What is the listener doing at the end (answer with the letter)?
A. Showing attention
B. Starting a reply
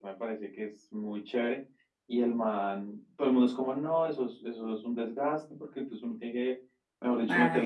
A